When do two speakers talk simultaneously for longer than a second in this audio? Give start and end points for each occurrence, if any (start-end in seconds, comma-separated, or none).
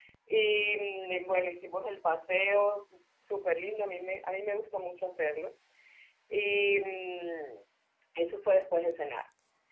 none